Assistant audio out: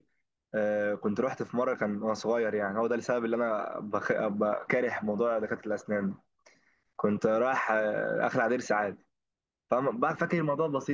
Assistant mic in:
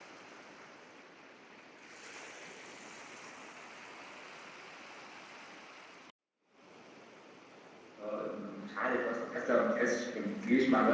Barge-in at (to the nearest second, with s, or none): 8 s